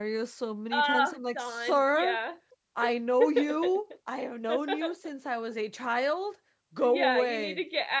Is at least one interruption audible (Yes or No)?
Yes